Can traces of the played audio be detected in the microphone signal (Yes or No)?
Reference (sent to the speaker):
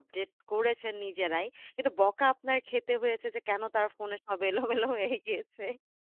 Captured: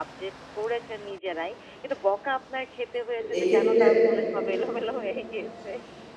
Yes